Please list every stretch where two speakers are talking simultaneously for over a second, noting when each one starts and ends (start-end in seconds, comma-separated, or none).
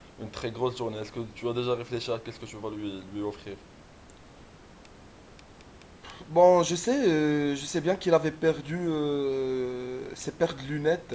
none